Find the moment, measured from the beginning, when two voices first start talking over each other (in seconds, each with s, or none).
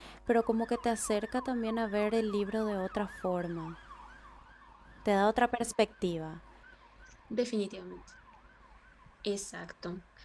none